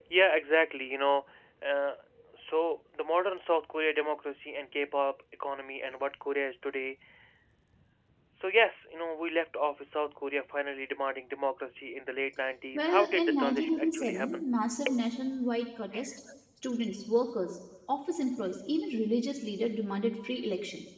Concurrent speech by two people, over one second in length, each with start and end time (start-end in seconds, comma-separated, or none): 12.7-14.4